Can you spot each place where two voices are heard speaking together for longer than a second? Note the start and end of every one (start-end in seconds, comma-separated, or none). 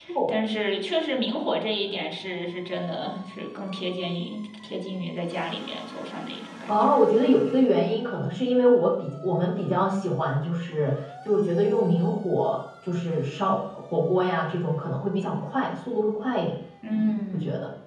none